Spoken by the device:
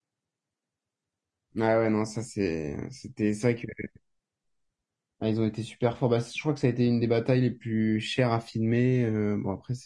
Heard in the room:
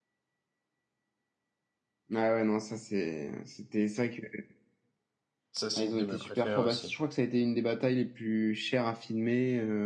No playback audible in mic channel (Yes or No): No